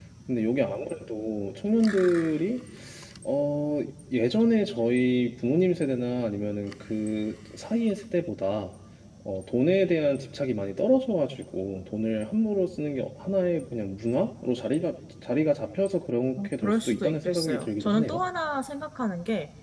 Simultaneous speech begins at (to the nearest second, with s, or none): 16 s